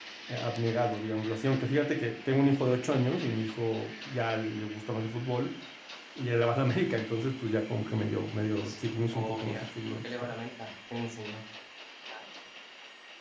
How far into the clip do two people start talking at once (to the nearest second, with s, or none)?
9 s